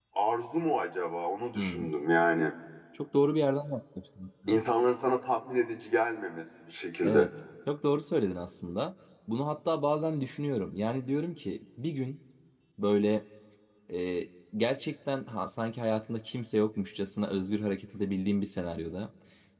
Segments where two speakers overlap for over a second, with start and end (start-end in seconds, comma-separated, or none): none